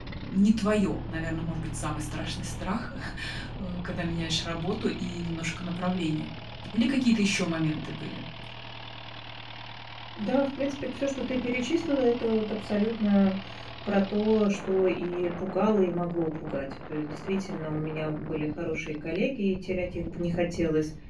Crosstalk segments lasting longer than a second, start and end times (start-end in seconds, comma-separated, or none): none